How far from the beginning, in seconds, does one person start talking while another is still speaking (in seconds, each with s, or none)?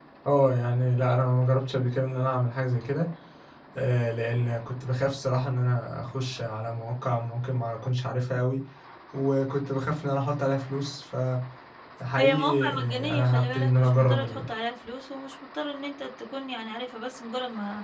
12.2 s